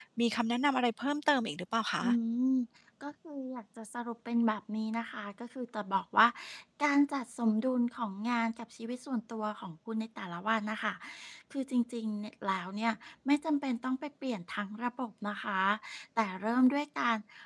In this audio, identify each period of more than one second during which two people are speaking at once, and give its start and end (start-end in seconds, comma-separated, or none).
none